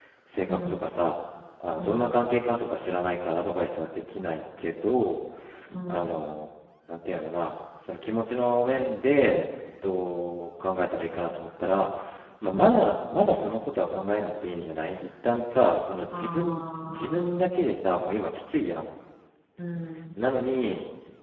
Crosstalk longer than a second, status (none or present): present